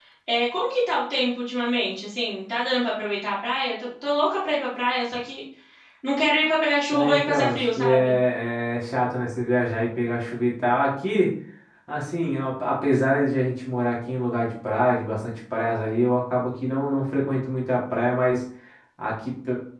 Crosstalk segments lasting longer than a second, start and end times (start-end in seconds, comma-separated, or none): 6.9-8.2